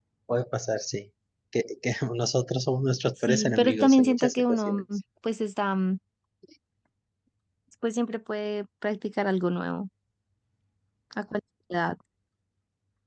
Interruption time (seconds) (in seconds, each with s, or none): 3.2 s